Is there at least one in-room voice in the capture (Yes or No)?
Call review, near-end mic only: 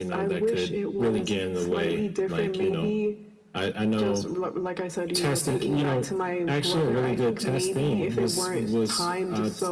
No